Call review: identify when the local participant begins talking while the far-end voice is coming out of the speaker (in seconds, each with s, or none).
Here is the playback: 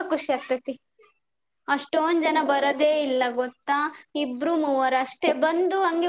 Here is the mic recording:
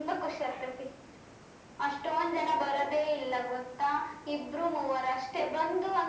none